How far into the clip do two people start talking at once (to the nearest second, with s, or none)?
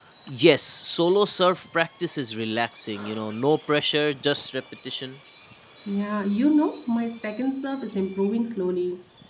none